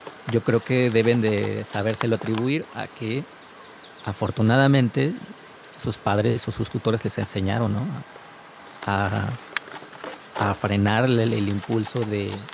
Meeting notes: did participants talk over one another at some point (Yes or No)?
No